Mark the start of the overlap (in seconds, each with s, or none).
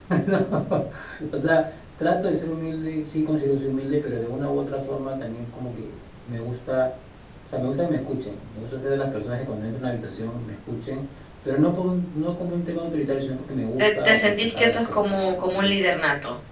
13.8 s